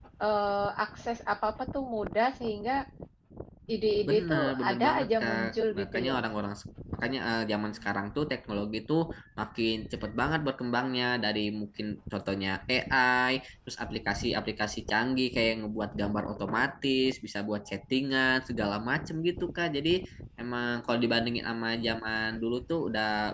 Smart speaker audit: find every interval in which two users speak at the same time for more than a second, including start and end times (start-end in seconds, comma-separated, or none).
4.1-6.2